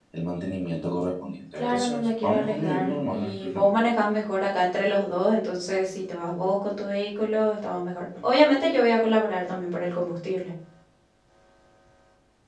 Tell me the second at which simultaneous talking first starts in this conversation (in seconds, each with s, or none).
1.5 s